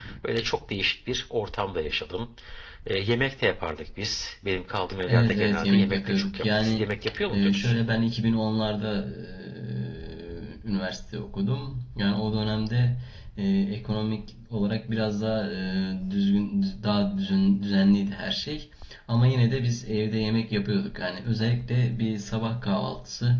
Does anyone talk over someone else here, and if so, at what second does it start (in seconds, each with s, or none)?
5.1 s